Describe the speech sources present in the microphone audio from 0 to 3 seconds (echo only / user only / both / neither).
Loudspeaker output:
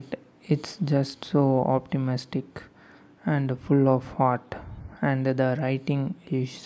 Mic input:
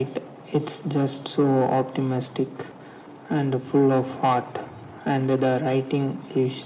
echo only